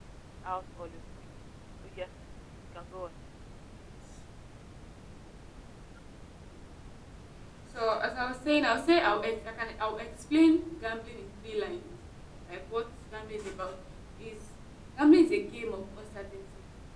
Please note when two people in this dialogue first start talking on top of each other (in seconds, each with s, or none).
none